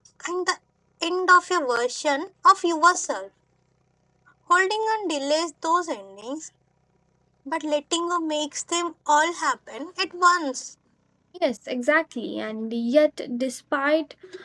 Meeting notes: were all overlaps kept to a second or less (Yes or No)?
Yes